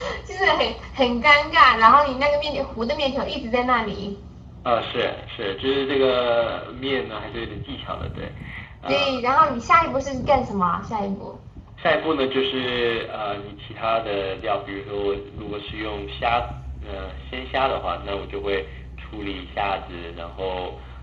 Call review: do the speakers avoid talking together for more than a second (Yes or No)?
Yes